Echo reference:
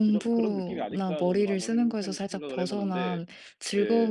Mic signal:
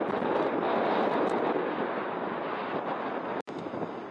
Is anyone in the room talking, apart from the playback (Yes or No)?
No